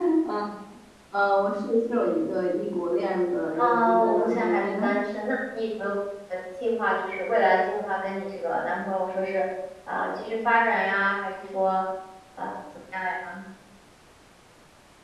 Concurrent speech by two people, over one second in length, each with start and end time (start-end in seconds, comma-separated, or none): 3.6-4.9